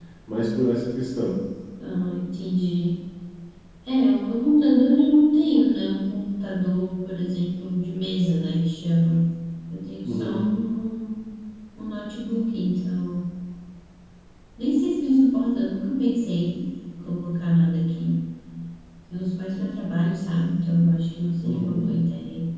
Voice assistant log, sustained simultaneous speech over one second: none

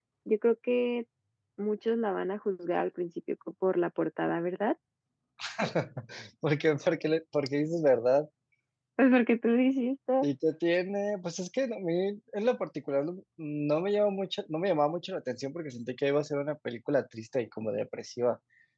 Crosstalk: none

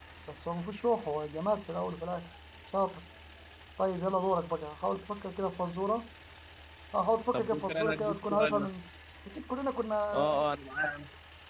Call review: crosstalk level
present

